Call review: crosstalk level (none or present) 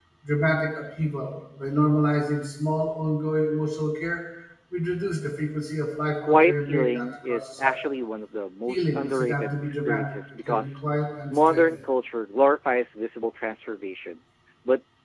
present